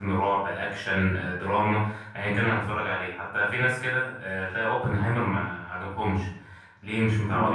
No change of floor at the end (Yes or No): Yes